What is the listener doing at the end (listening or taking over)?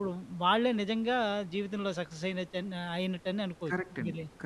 taking over